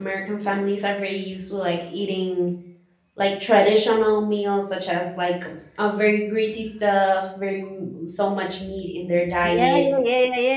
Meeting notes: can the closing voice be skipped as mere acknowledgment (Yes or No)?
No